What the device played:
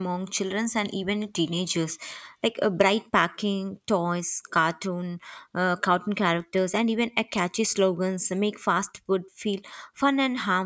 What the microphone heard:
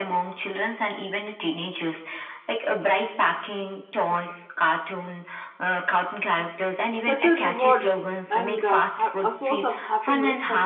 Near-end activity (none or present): present